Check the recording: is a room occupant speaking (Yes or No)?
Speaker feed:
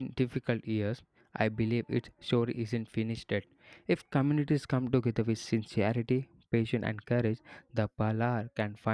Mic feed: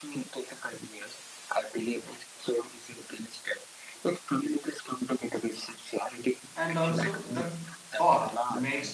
Yes